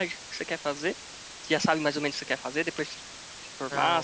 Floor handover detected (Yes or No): Yes